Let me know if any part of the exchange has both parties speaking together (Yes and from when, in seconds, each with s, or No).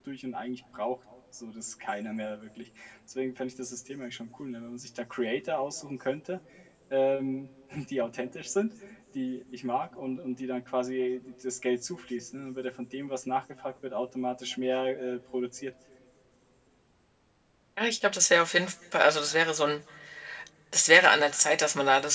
No